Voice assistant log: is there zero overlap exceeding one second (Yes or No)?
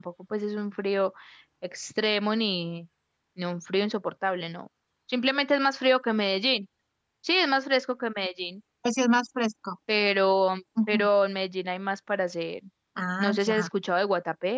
Yes